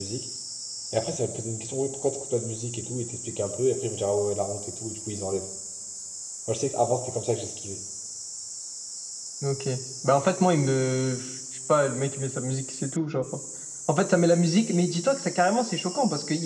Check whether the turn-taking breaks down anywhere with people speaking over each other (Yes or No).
No